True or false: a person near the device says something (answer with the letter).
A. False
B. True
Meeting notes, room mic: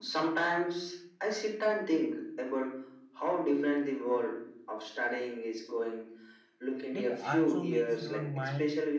B